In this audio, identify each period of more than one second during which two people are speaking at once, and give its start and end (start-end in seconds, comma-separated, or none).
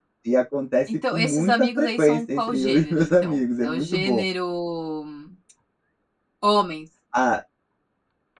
1.1-4.2